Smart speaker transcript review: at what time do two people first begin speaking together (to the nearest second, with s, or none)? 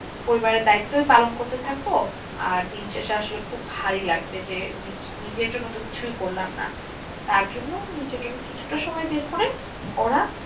none